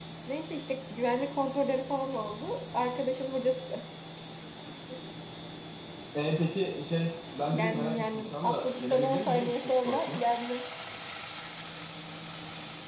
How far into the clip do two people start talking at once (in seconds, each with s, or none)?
7.5 s